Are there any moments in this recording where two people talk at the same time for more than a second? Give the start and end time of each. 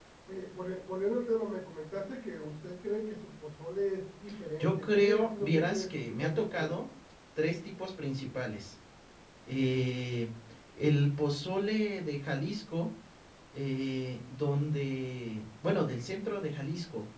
4.6-6.7

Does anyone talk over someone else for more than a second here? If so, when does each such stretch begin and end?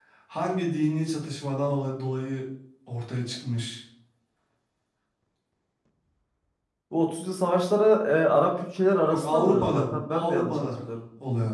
9.0-10.5

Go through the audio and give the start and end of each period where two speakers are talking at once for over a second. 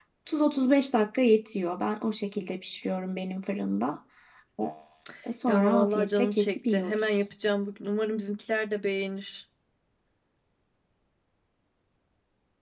5.5-7.0

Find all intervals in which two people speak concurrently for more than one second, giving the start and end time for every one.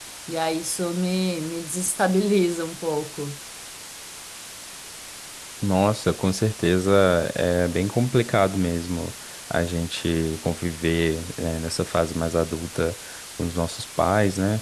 none

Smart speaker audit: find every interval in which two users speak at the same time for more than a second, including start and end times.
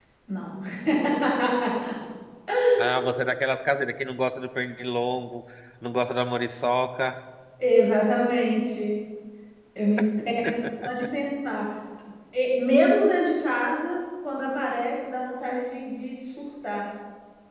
none

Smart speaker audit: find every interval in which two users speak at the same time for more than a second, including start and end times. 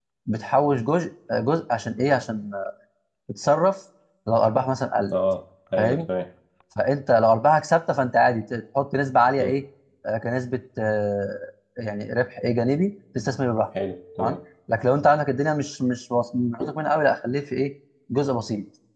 none

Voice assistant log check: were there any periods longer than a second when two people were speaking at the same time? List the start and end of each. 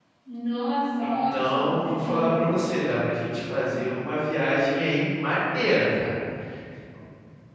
1.0-2.6

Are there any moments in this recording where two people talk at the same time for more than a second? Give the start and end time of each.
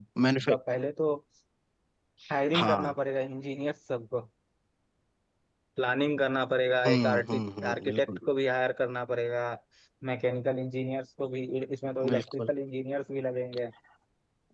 6.8-8.2

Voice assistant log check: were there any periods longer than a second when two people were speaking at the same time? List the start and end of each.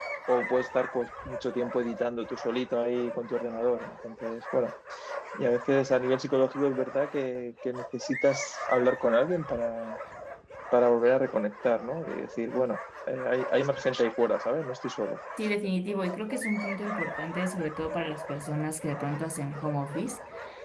none

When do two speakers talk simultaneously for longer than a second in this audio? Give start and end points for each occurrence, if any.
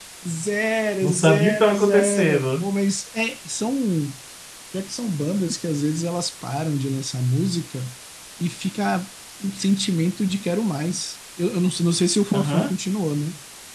1.0-2.7

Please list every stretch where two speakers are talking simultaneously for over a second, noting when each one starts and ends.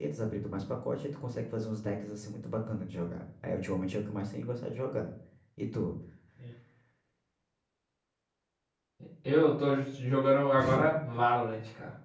none

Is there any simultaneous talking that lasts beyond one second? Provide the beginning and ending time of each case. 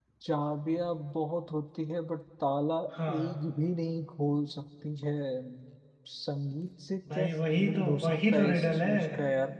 7.2-8.9

